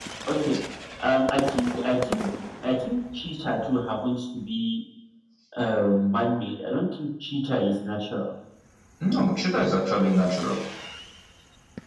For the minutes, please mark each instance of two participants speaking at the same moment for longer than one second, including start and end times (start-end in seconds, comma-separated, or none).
none